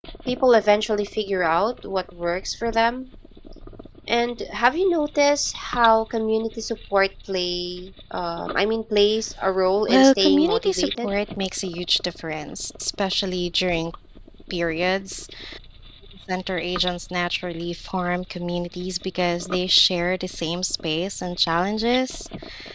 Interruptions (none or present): present